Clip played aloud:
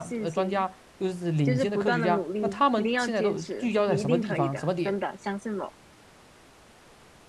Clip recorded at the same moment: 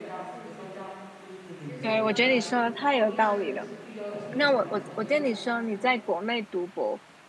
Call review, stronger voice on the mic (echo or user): user